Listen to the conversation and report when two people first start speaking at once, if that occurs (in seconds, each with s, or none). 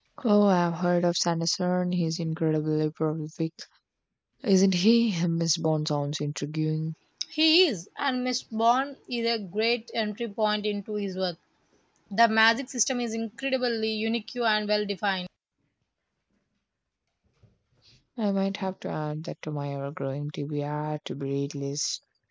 none